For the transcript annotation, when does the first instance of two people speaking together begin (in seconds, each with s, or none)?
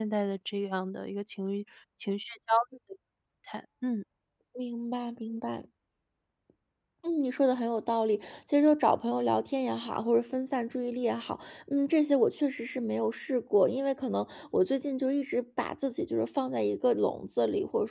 none